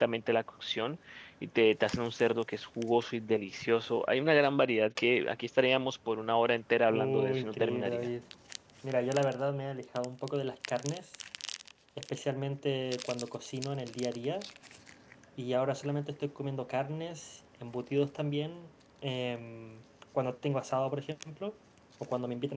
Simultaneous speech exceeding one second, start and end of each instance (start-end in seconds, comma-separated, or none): 6.9-8.1